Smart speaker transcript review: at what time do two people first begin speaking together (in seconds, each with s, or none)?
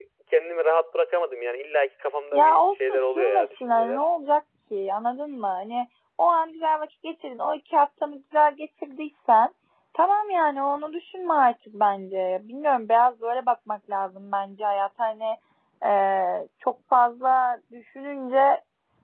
2.3 s